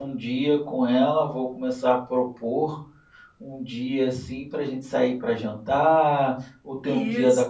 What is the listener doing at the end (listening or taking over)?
listening